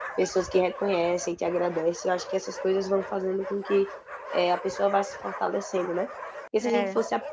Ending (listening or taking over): listening